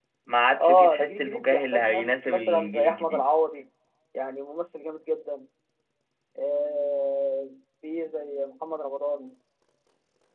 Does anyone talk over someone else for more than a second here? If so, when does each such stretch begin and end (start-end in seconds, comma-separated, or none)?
0.6-3.3